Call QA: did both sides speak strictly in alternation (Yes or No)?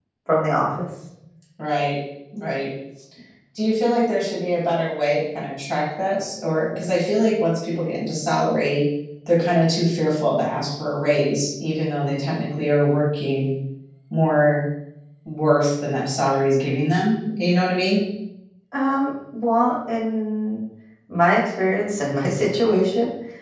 Yes